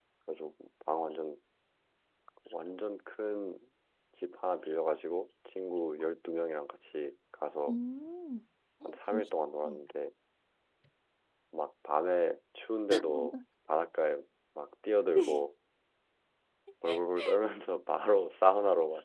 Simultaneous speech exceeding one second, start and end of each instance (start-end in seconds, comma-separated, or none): none